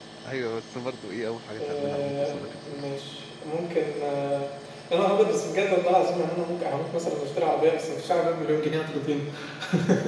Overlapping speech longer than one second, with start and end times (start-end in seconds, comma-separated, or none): 1.6-2.9